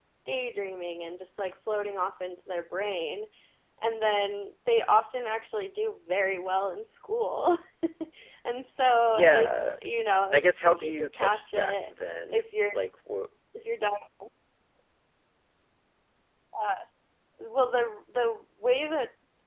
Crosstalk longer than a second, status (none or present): present